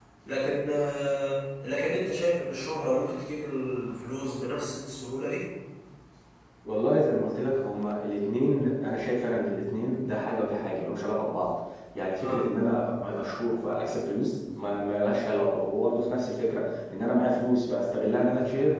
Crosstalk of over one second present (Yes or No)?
No